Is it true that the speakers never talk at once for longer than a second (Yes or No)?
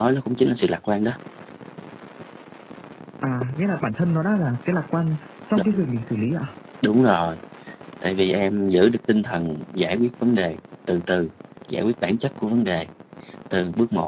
Yes